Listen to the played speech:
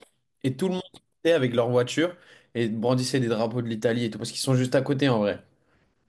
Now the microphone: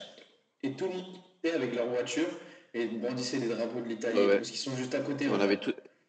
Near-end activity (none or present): present